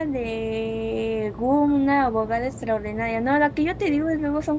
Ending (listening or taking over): listening